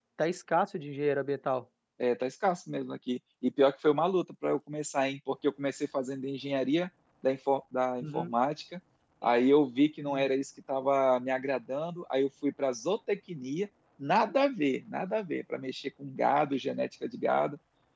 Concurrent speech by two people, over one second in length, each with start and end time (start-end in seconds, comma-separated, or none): none